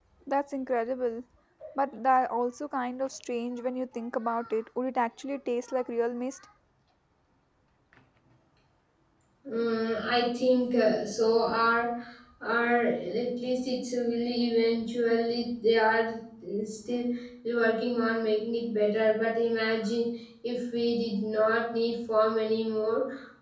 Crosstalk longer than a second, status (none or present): none